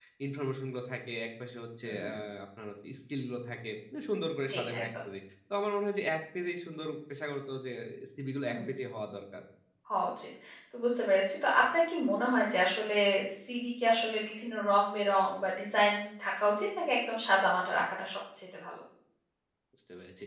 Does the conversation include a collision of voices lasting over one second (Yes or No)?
No